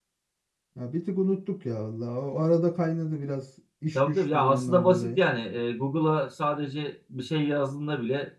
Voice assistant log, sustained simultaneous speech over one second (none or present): present